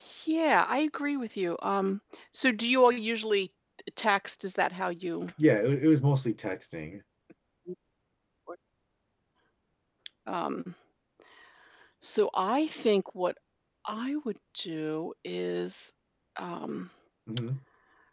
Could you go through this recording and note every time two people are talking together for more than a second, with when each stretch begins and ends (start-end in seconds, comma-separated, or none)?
none